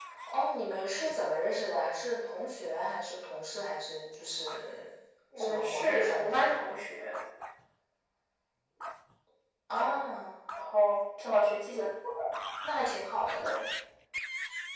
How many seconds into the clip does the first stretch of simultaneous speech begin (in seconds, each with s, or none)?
5.4 s